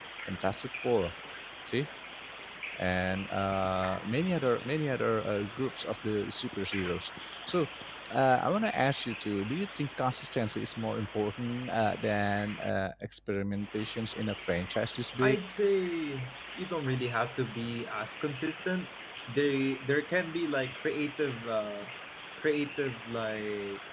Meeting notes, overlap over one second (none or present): none